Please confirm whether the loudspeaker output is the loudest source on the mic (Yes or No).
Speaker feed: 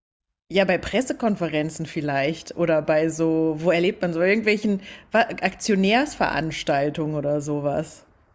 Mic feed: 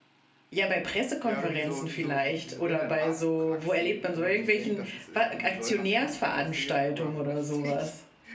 Yes